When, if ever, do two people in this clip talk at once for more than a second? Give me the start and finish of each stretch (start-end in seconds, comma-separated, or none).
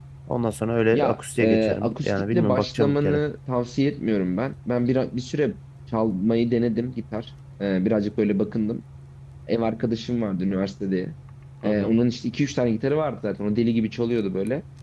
0.9-3.2